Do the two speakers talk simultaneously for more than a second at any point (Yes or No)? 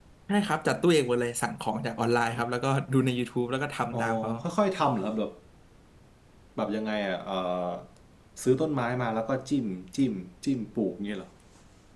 No